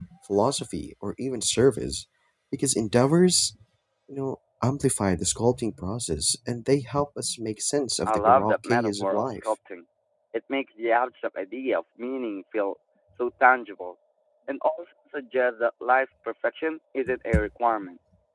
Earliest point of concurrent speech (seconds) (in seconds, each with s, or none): 8.1 s